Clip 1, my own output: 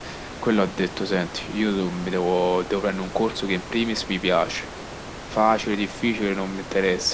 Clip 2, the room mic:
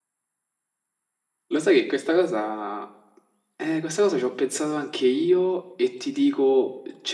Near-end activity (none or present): present